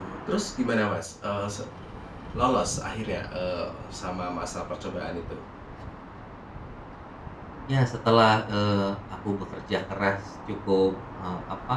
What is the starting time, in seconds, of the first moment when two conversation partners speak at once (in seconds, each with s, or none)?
none